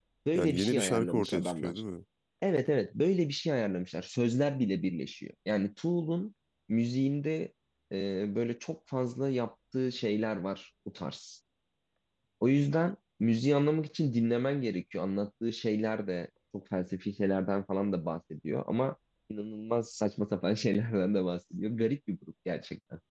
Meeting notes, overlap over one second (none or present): present